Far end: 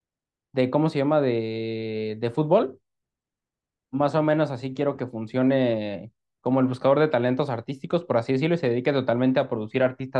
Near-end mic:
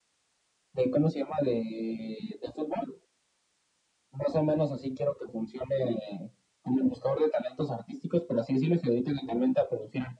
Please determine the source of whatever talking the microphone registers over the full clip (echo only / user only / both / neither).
echo only